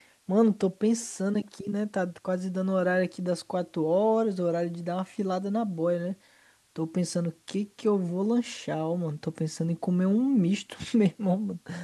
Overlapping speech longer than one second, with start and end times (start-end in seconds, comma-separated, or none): none